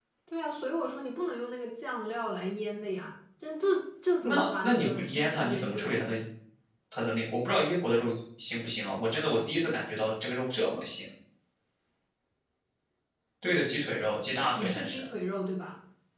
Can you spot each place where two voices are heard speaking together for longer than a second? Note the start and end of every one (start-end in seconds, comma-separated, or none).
4.2-6.1